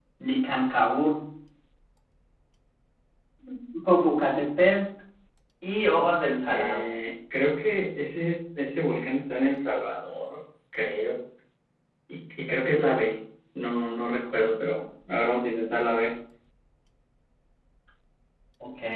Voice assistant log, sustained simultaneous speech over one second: none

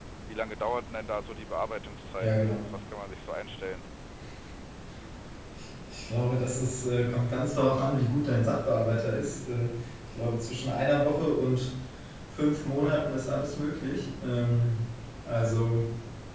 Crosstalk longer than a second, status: none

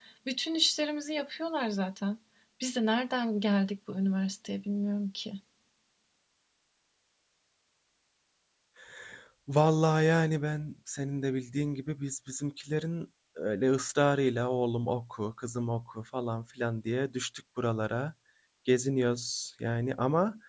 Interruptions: none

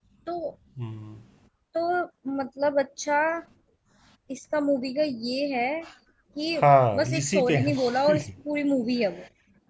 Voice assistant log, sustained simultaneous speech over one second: present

